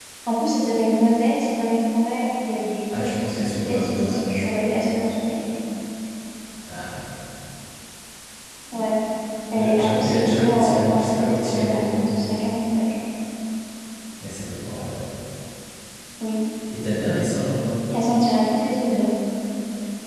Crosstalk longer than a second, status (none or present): present